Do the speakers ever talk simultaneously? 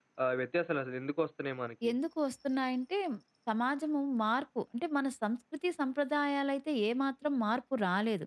No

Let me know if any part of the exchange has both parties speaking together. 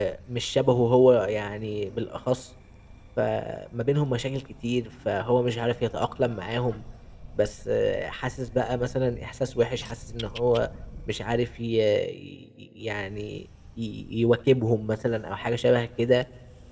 No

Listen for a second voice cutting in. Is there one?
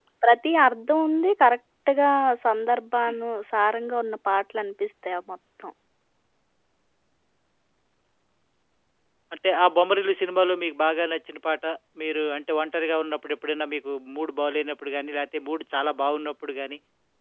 No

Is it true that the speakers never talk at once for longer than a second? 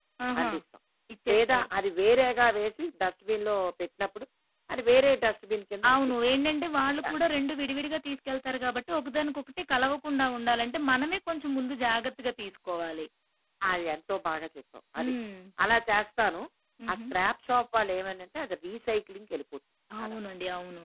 Yes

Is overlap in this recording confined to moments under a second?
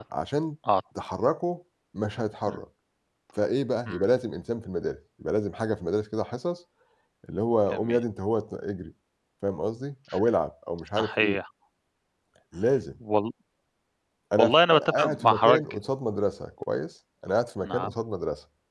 No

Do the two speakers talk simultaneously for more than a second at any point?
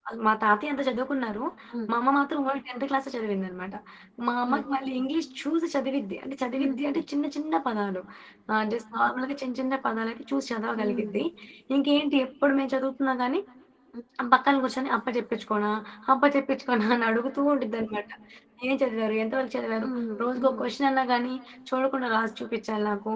No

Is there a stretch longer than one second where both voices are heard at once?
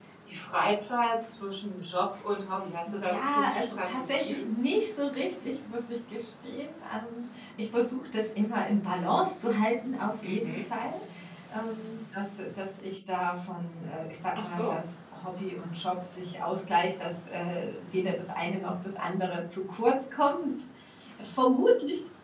Yes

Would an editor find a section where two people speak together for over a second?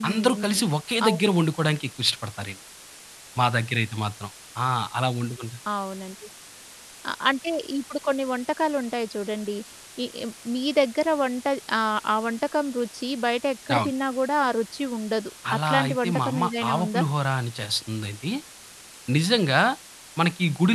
Yes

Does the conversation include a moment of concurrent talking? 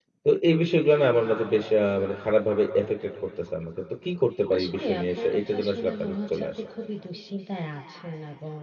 Yes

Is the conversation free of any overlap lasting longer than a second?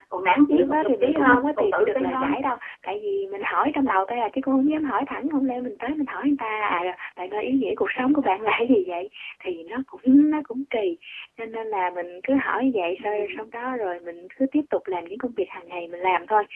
No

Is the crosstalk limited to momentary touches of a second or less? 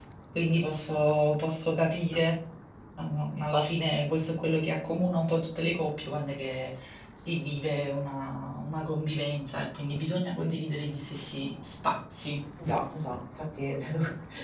Yes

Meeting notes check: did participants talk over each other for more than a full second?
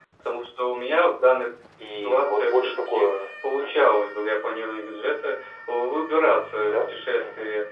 Yes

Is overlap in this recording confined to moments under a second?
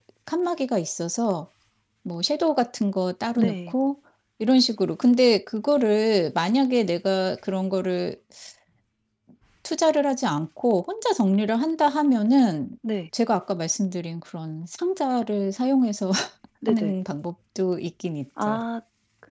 Yes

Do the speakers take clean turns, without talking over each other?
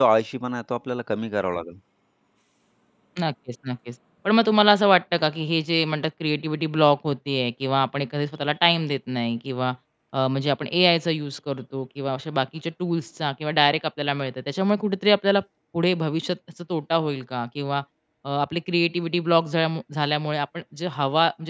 Yes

